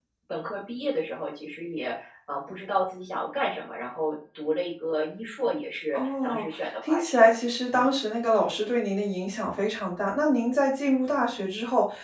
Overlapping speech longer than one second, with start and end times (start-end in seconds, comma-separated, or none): 5.9-7.3